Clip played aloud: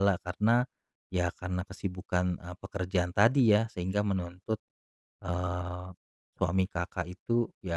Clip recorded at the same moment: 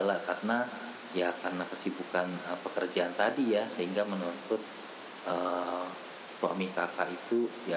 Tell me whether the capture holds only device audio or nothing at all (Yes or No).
Yes